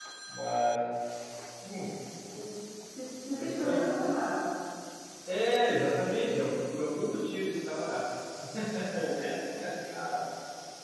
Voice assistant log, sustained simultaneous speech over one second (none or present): none